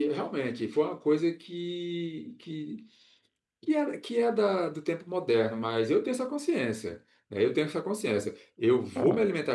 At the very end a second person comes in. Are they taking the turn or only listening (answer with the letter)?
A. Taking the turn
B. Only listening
B